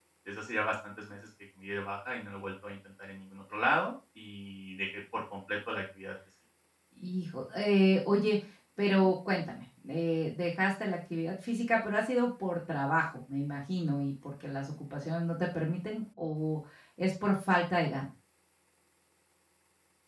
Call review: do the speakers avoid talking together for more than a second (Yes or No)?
Yes